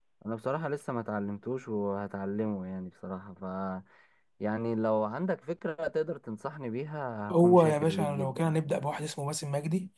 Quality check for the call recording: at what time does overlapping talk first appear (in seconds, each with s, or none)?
7.3 s